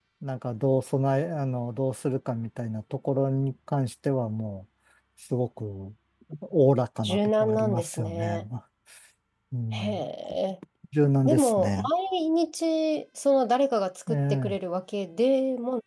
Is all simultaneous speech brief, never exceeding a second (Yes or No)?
No